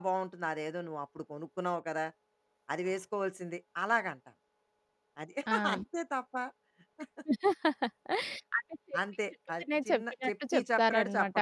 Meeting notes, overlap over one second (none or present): present